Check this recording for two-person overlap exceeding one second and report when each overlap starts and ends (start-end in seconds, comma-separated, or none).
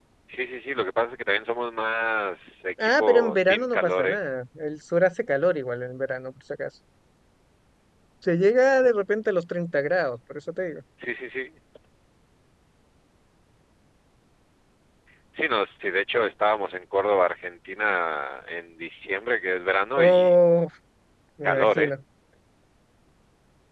2.8-4.2